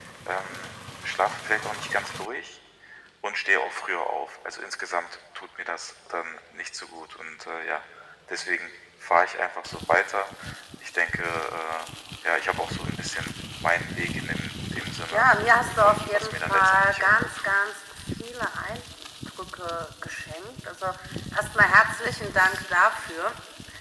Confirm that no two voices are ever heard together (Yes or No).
No